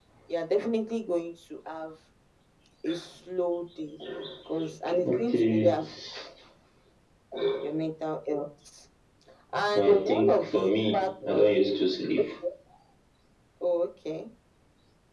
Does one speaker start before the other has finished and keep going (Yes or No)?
Yes